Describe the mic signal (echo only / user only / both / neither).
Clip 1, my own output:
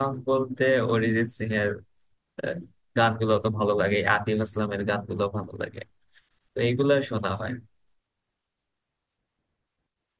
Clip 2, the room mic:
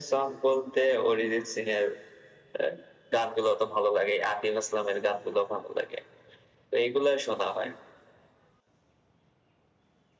echo only